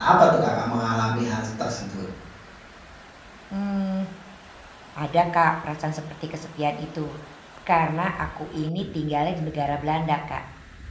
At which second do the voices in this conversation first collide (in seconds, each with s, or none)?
none